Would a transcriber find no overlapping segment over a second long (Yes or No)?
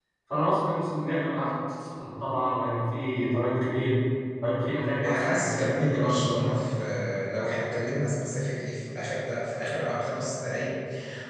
No